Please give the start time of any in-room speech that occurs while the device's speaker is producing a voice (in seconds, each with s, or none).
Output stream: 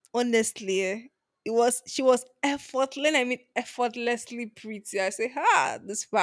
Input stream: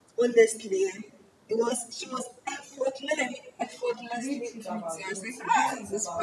4.1 s